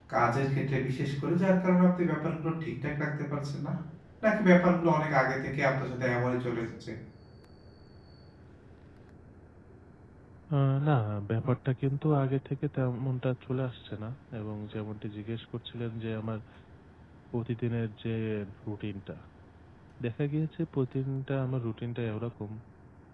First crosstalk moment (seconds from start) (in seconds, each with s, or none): none